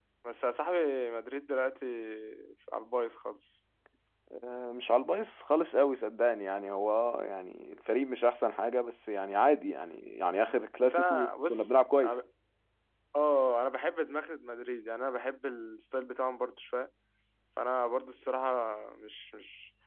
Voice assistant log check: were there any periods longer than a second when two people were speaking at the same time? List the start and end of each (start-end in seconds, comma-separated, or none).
10.8-12.1